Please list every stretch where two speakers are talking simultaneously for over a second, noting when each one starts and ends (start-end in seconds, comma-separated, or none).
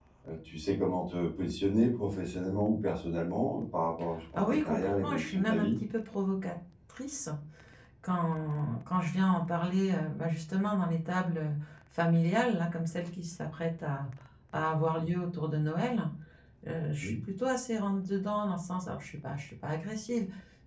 4.4-5.7